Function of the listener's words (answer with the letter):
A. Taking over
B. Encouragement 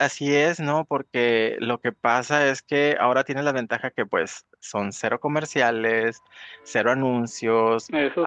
B